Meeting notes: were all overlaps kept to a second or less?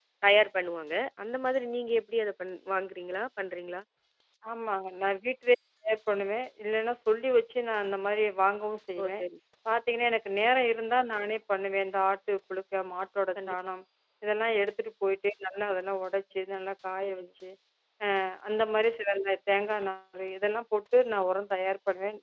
Yes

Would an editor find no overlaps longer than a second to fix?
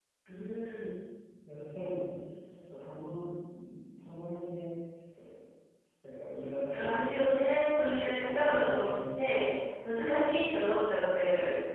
No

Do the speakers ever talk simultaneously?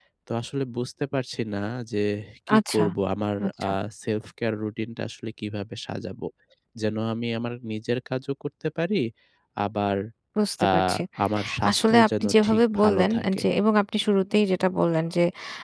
Yes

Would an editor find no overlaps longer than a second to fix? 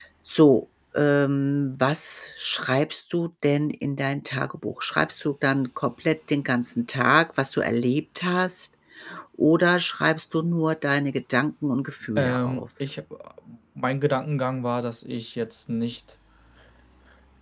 Yes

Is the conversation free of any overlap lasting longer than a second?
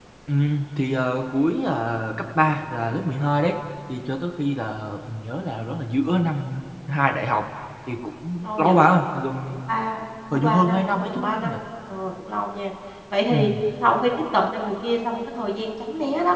No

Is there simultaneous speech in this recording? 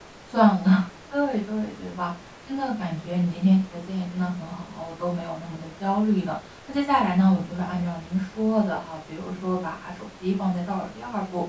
No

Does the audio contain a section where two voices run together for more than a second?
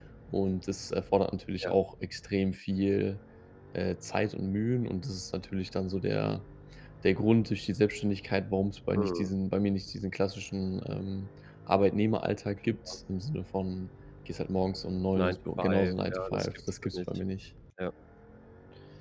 Yes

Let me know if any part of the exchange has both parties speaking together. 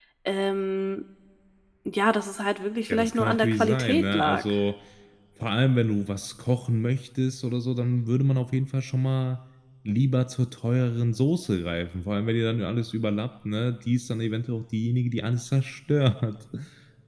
Yes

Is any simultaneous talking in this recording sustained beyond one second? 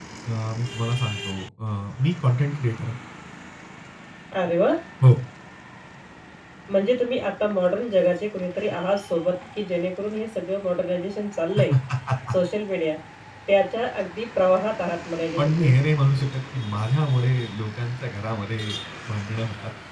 No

